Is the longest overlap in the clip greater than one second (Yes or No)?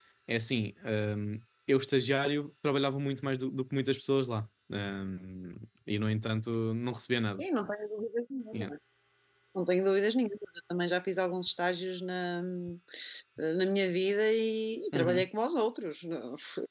No